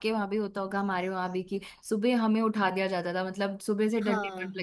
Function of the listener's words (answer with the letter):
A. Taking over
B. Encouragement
B